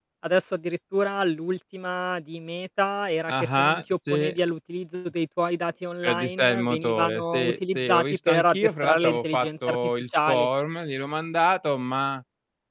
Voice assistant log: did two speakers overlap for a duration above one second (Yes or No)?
Yes